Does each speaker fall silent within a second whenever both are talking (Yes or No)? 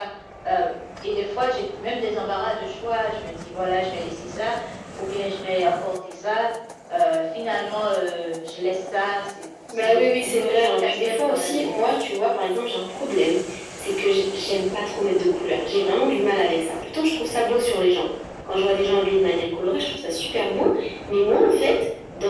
No